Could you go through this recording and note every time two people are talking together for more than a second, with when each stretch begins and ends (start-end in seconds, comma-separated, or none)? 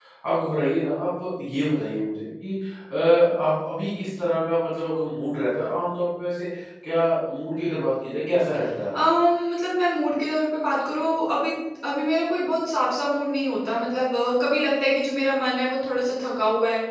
none